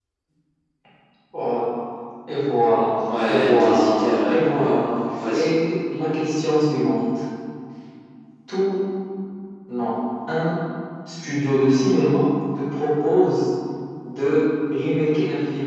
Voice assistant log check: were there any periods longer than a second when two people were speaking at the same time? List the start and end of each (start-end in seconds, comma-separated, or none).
3.3-4.7